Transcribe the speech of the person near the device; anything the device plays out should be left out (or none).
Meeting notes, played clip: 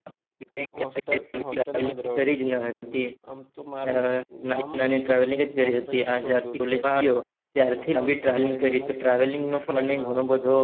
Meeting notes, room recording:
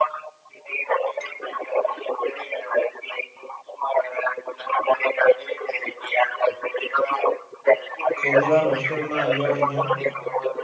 પેલી વાર હોસ્ટેલમાં આવ્યો અહિયા